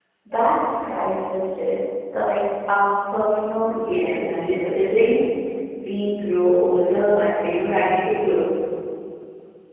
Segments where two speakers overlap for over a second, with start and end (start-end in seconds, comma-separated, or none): 3.7-5.0